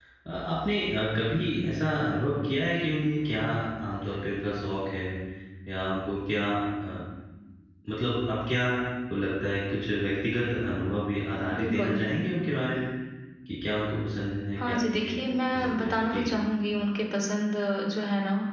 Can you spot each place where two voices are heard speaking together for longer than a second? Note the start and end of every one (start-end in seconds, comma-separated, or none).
14.6-16.3